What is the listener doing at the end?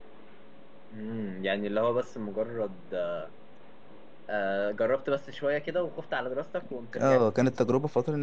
taking over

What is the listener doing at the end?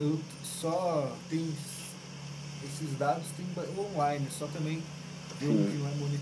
listening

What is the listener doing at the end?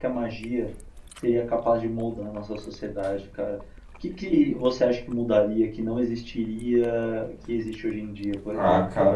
taking over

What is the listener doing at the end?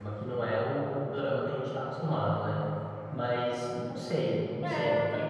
taking over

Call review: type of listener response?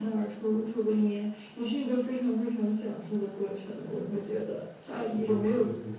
listening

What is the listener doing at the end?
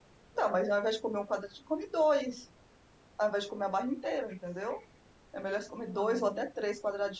listening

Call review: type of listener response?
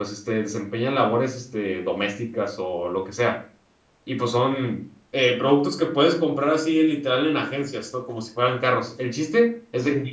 listening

